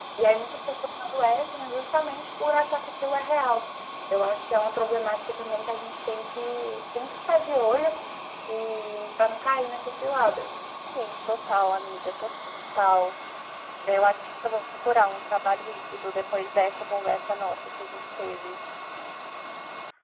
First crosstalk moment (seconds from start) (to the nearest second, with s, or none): none